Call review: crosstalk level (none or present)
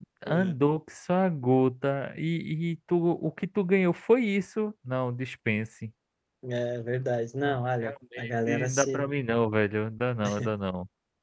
present